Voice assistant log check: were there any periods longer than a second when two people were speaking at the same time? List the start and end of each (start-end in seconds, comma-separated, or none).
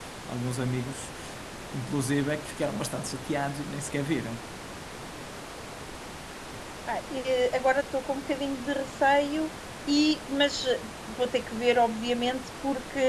none